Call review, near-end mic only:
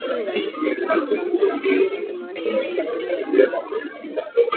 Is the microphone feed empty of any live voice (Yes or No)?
No